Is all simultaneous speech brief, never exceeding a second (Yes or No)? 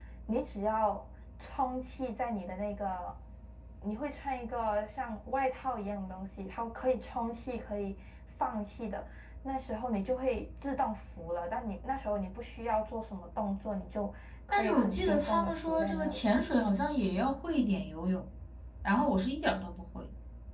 No